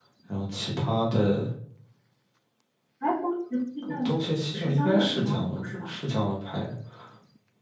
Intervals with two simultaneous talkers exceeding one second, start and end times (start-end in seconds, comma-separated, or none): 4.5-5.9